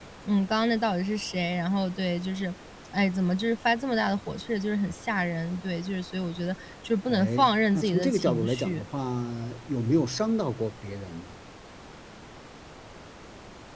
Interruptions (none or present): present